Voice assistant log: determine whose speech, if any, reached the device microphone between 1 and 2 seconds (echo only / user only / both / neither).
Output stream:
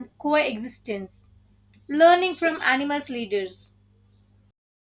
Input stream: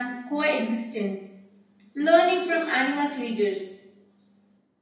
echo only